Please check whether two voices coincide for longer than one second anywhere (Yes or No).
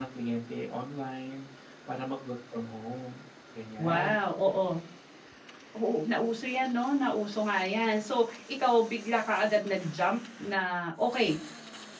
No